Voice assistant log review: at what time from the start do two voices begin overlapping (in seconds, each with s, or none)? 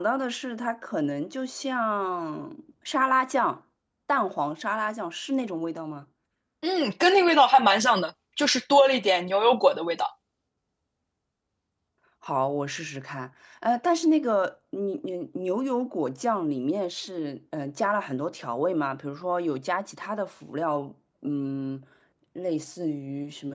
none